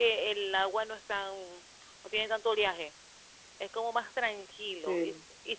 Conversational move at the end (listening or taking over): listening